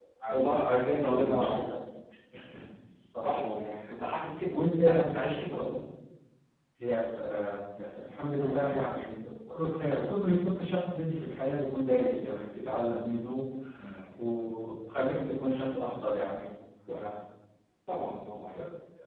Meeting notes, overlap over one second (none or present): present